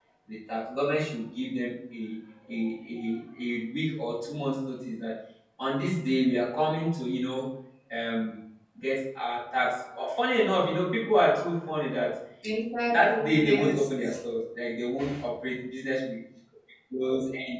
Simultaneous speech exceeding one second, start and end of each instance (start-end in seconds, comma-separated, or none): 12.9-14.1